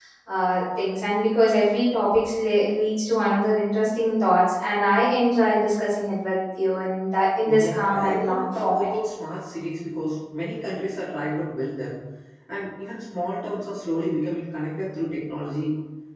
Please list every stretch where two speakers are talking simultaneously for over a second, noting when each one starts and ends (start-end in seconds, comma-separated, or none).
7.6-8.9